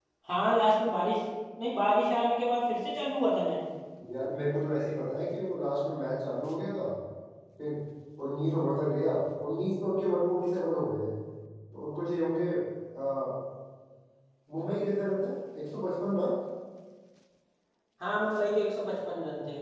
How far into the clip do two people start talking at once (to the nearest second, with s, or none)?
none